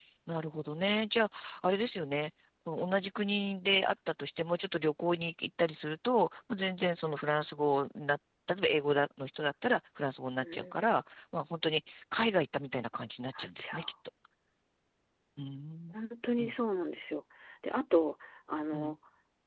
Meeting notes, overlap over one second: none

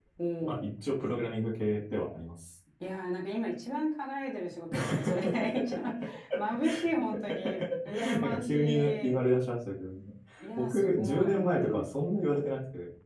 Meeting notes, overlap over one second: present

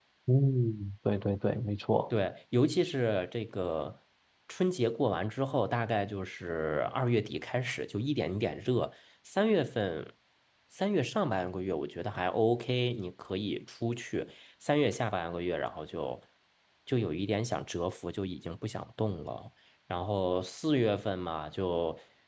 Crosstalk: none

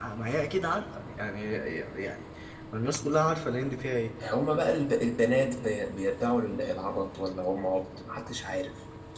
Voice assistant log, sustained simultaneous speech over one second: none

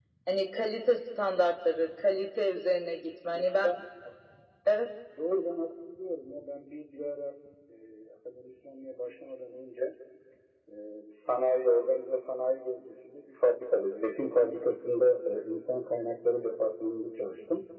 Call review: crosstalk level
none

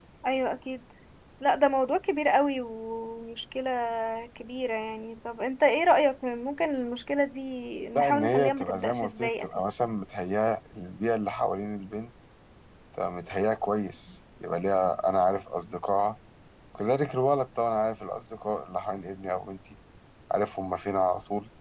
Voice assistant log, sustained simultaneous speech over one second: present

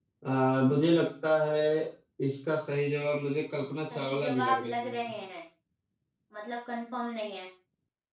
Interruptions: present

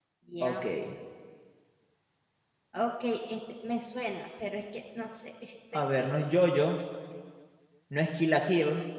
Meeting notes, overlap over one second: none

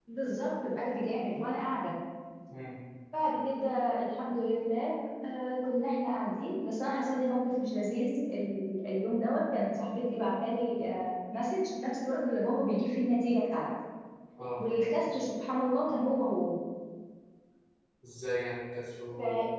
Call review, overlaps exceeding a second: none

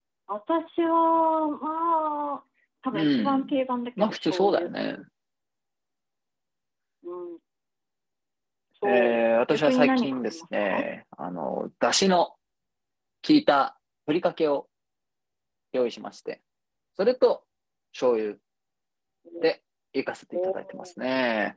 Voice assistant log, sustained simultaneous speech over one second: present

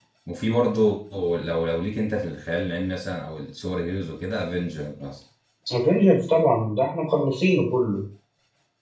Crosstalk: none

